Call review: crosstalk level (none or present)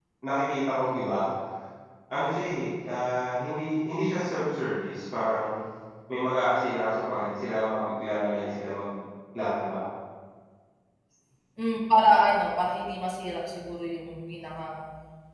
none